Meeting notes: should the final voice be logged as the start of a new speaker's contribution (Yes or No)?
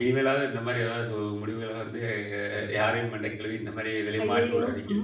Yes